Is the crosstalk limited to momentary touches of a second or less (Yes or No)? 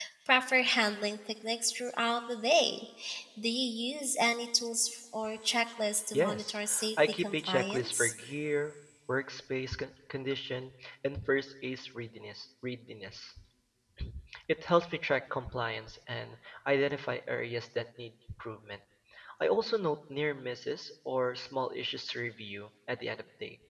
No